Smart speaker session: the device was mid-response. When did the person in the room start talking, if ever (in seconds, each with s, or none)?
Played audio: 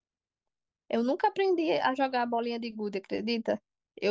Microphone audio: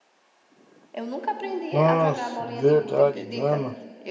1.7 s